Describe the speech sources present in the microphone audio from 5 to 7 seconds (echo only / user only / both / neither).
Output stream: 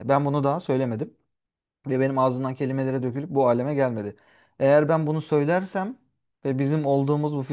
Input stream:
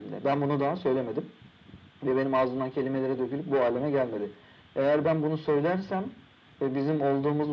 echo only